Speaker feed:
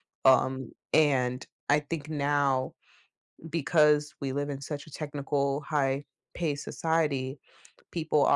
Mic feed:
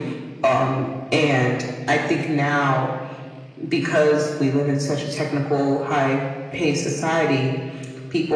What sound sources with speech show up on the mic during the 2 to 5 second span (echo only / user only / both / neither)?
echo only